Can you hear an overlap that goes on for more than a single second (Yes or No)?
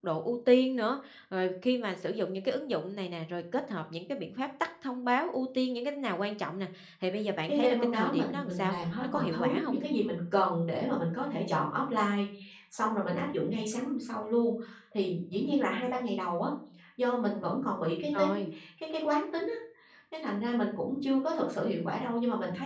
Yes